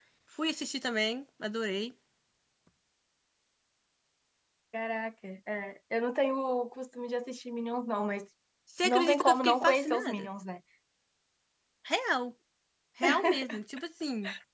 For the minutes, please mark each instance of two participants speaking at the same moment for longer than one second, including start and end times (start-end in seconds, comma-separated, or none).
8.8-10.3